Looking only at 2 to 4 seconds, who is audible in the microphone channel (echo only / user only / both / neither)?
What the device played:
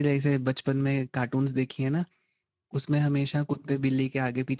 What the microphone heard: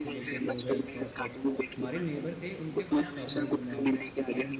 both